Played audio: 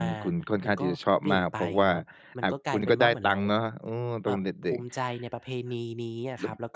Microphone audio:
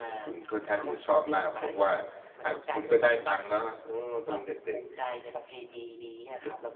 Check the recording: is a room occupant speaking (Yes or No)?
No